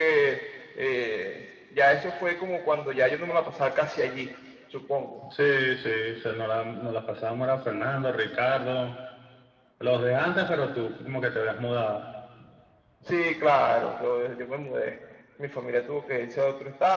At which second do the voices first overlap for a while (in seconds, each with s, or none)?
none